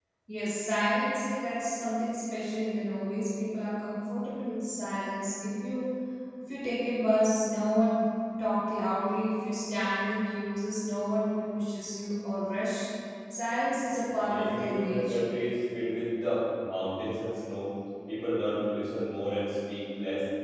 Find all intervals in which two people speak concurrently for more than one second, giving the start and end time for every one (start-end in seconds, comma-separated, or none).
14.1-15.3